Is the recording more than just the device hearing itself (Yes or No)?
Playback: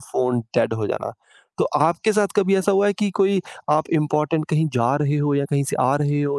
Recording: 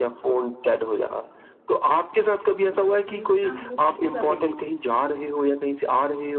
Yes